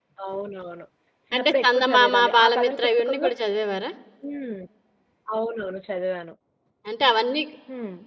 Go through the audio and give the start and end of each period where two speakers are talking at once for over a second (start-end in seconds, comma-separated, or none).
1.4-3.3